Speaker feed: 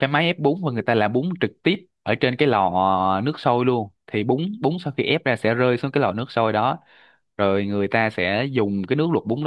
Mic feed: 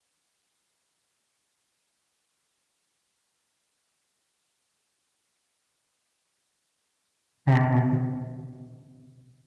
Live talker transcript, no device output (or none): À,